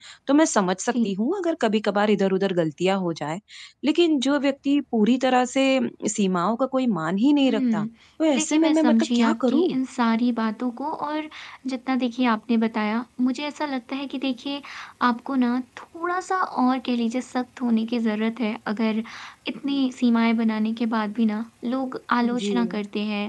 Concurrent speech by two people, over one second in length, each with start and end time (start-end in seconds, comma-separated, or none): 8.3-9.8